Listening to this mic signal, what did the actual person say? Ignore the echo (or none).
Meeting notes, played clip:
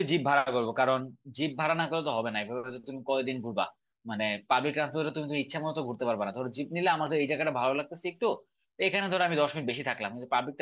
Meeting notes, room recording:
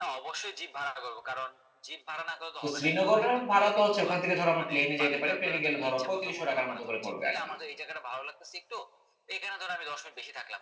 তো শ্রীনগরের ভাড়া তো হচ্ছে ওখান থেকে ধরো আমরা প্লেনে যাইতে পারি প্লেনে গেলে ধরো পঁয়ত্রিশশো টাকার মতো করে পড়বে আর কি